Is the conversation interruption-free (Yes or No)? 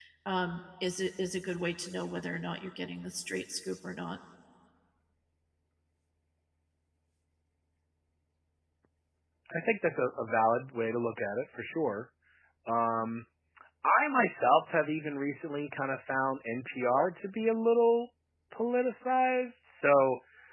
Yes